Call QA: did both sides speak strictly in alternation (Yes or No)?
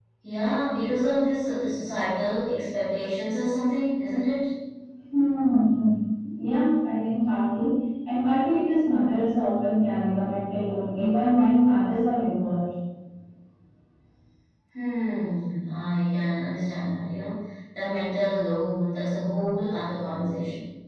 Yes